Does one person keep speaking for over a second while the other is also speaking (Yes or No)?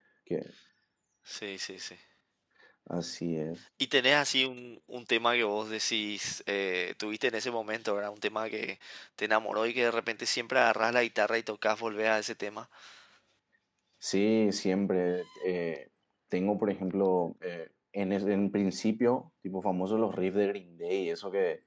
No